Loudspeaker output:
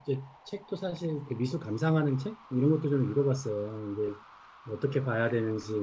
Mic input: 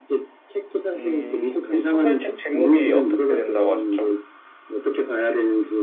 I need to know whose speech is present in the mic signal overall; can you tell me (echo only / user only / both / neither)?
both